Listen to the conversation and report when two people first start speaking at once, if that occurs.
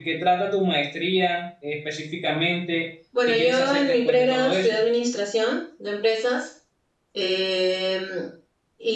3 s

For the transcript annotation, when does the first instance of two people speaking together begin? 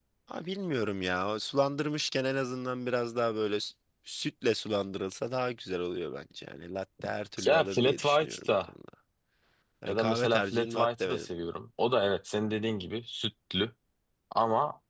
7 s

